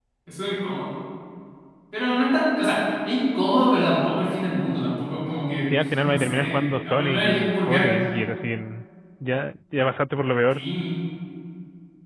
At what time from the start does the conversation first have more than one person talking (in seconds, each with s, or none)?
5.7 s